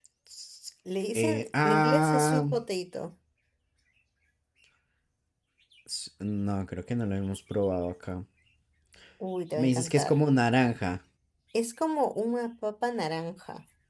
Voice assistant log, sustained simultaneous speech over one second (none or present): present